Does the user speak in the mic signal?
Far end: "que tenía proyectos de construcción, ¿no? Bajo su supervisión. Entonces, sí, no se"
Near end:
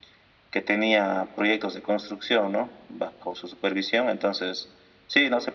No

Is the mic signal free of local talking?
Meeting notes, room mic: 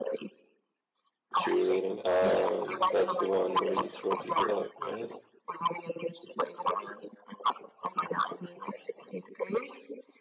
No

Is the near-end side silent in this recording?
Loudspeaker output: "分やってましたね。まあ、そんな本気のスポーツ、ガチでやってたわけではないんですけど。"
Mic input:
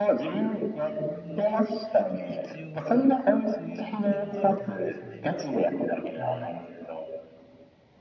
No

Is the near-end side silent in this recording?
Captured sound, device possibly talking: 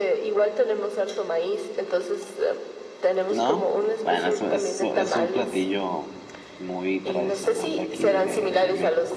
No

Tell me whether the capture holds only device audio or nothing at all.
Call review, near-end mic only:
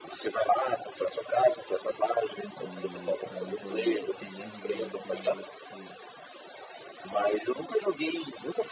No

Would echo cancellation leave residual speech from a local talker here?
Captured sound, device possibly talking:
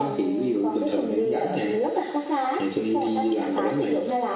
No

